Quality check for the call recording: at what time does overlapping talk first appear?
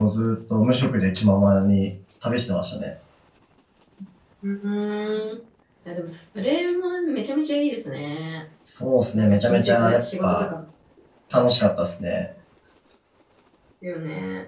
9.2 s

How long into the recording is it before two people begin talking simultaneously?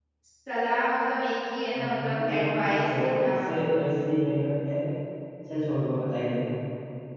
1.7 s

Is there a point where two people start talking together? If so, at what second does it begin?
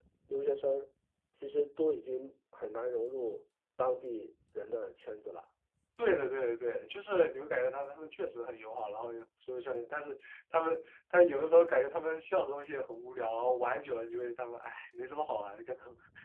none

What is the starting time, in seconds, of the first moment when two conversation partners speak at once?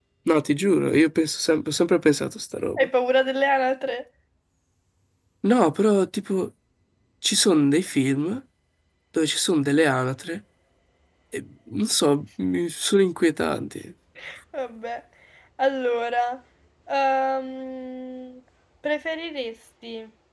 none

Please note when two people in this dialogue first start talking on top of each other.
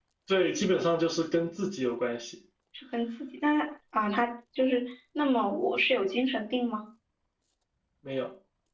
none

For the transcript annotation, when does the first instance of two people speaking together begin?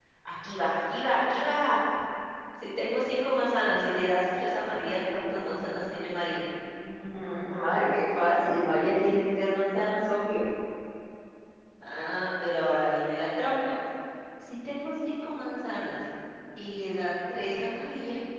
none

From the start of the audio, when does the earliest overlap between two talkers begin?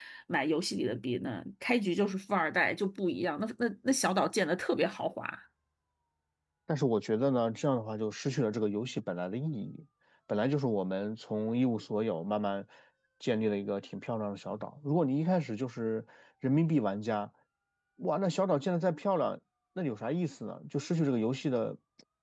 none

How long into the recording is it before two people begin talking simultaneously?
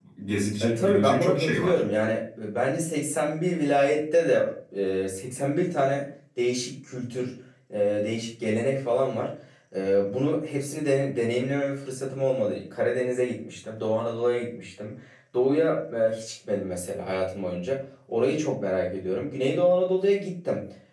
0.6 s

